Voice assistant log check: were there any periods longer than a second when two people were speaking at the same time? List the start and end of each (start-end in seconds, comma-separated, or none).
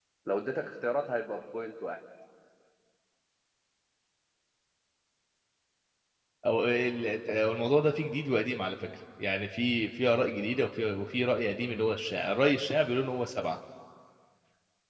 none